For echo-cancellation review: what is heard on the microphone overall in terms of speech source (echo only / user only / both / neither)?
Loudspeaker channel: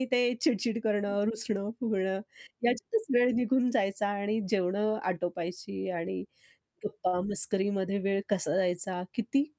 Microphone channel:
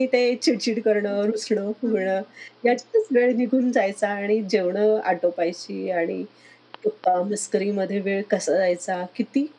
both